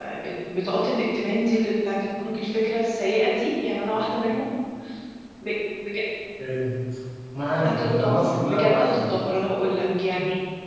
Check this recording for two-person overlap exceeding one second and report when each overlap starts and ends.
7.6-9.1

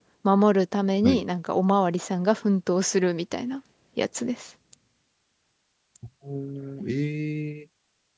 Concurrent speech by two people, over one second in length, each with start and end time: none

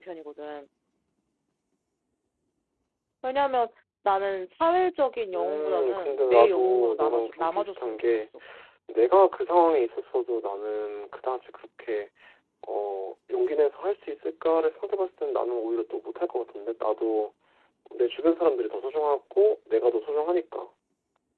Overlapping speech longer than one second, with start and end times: 5.3-8.3

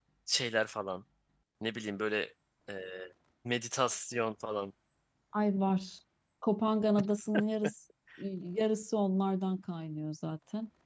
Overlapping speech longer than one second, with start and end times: none

